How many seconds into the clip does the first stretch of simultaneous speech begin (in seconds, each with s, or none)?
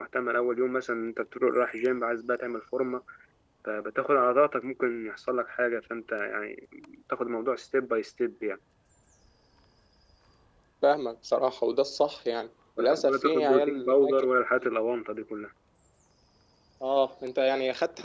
12.8 s